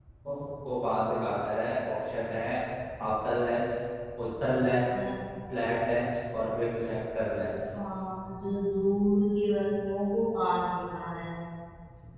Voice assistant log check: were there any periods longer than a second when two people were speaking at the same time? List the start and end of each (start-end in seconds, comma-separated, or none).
none